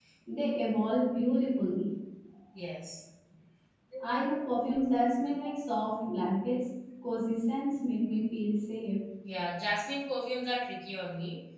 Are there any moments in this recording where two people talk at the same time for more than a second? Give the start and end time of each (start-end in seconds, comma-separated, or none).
none